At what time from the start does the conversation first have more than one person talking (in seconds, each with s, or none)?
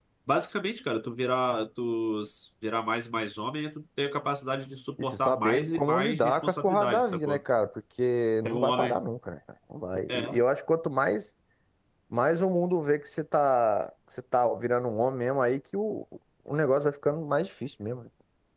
5.0 s